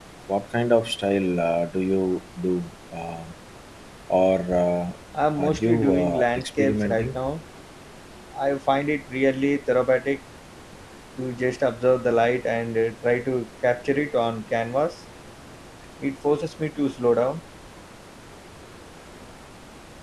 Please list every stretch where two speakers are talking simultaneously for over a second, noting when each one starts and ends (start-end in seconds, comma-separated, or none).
5.4-7.2